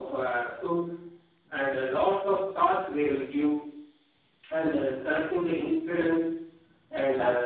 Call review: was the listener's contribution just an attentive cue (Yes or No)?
Yes